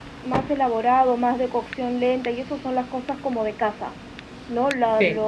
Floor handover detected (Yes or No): No